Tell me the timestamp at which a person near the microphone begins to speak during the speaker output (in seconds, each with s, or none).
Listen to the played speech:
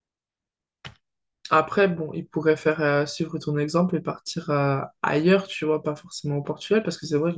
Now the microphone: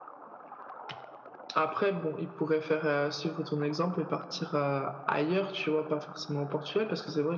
none